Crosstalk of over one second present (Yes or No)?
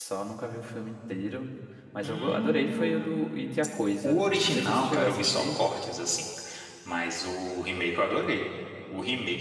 Yes